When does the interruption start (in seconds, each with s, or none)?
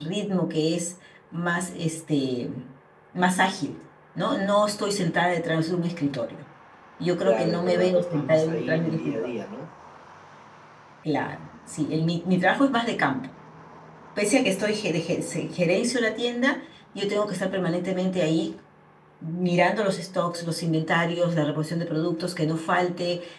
7.2 s